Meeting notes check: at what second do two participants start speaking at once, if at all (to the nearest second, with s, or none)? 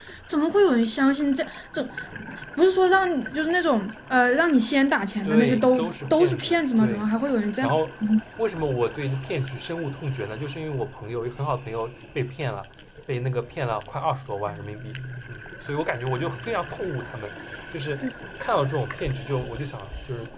5 s